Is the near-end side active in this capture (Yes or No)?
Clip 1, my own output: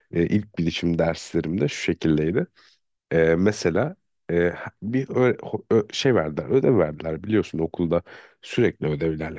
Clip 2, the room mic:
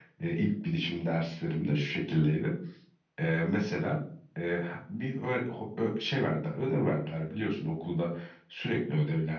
No